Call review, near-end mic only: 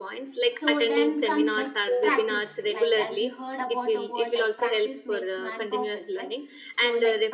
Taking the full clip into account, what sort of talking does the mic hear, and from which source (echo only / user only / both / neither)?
both